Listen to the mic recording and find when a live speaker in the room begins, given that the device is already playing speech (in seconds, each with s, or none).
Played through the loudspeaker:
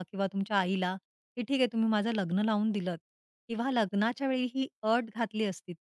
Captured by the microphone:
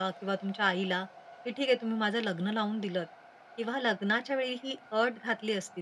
none